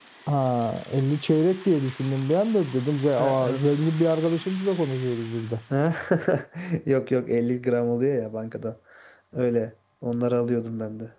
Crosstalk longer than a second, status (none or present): none